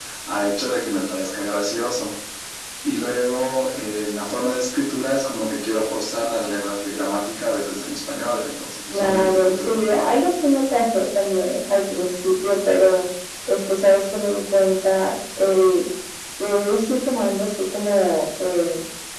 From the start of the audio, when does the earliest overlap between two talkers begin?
8.9 s

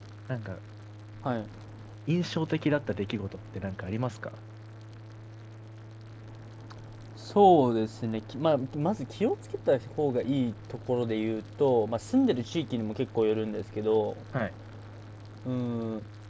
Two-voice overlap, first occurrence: none

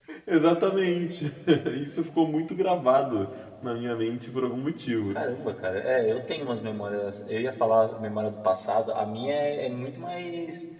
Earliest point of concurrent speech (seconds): none

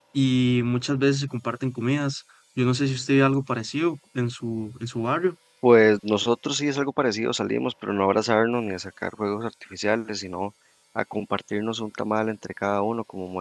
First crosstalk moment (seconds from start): none

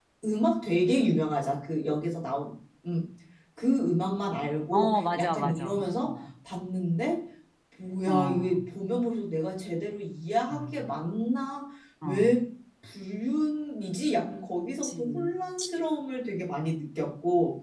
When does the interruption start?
4.7 s

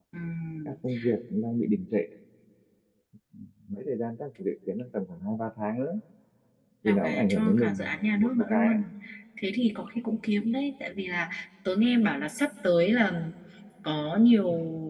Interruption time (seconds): 6.8 s

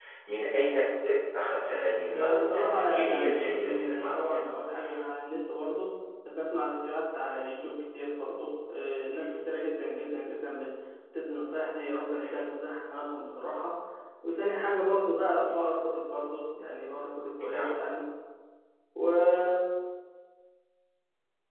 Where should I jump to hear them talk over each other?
2.1 s

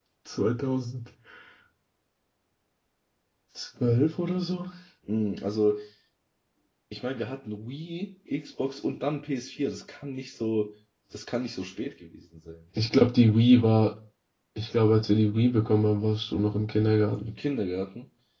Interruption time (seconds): none

